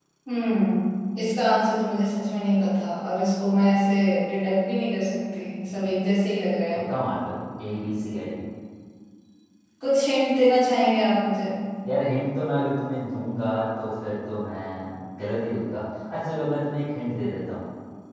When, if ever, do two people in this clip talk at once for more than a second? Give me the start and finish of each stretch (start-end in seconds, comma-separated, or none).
none